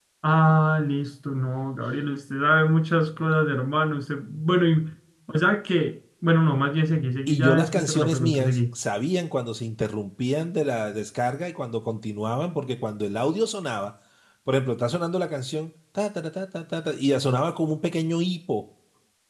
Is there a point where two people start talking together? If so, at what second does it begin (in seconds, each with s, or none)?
7.3 s